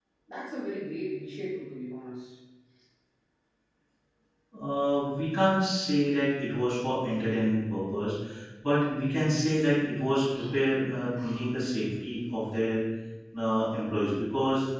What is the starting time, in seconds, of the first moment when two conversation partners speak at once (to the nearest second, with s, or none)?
none